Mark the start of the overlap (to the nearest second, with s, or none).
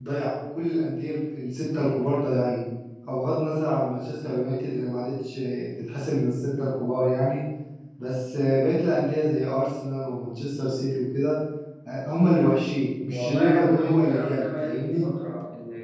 13 s